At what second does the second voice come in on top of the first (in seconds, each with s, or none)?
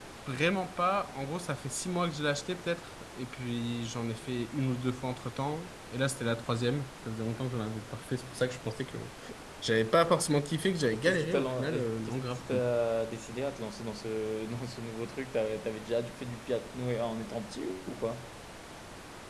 10.9 s